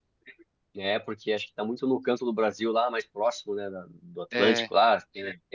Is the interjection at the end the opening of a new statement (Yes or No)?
No